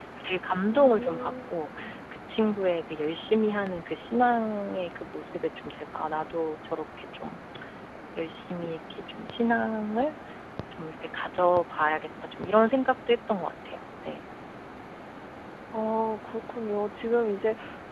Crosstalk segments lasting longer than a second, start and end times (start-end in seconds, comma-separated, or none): 0.7-1.9